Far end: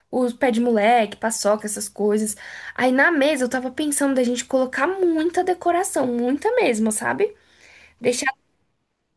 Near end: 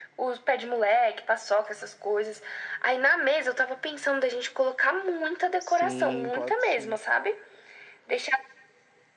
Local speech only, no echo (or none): Sim, pode sim.